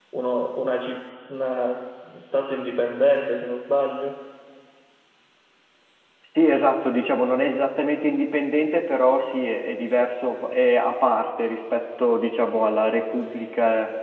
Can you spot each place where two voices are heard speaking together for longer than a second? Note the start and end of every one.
none

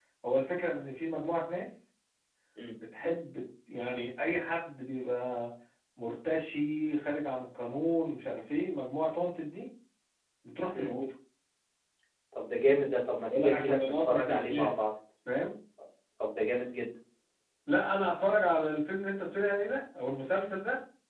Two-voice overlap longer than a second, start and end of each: 13.3-14.9

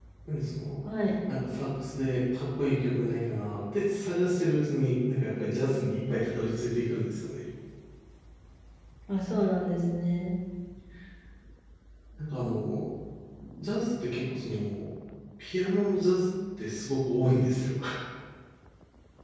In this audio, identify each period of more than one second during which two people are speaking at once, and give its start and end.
none

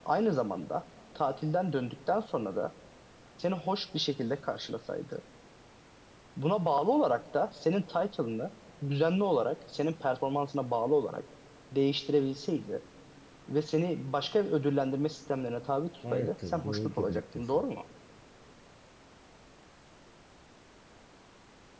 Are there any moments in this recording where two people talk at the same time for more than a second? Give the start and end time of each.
16.1-17.6

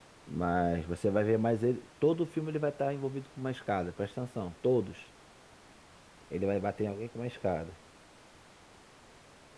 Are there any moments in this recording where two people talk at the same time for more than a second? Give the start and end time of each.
none

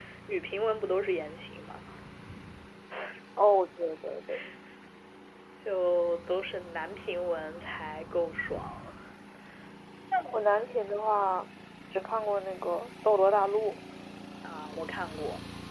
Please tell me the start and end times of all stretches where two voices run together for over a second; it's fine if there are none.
none

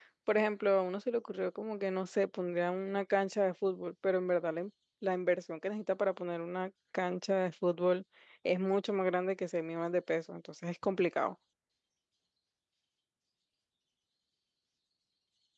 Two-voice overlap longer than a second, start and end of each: none

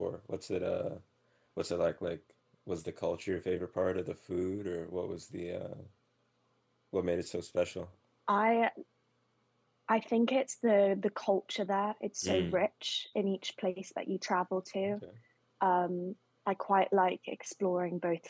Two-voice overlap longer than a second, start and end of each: none

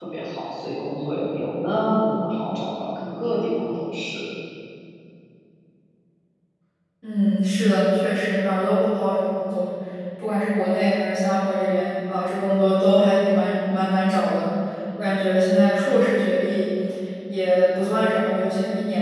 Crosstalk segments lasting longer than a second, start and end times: none

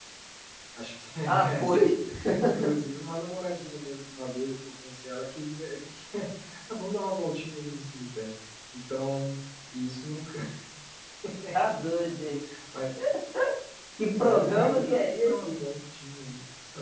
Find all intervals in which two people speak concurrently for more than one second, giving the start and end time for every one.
14.2-15.6

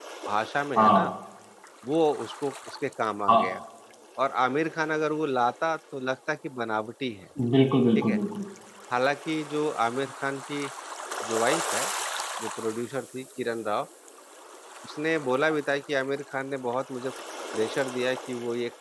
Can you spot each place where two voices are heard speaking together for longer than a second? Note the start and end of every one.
none

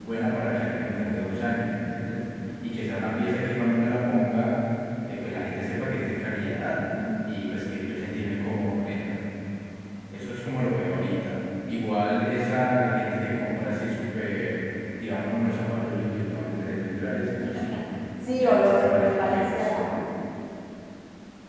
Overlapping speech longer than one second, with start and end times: 18.4-19.7

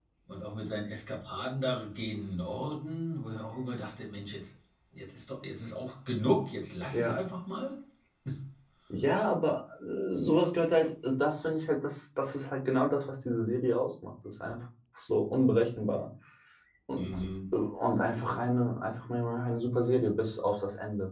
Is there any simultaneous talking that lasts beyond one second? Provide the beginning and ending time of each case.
none

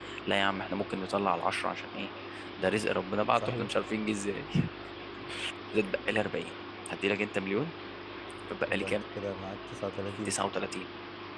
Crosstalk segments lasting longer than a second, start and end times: none

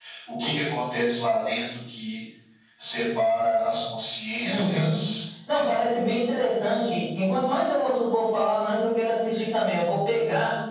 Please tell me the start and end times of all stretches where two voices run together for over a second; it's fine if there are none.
none

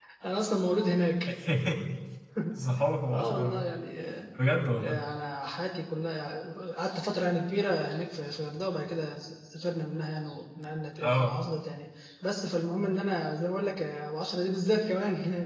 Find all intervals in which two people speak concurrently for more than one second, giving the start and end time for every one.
none

